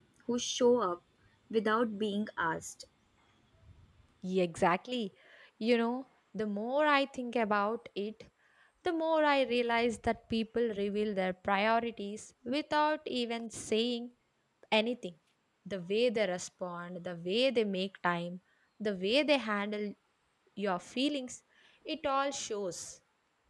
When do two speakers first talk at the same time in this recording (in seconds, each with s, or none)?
none